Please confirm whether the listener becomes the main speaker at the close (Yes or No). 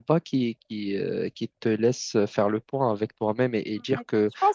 Yes